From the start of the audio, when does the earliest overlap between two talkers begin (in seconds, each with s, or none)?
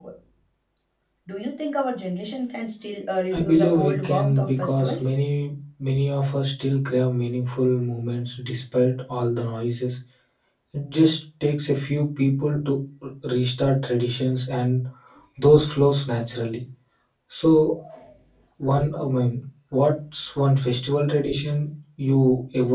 3.3 s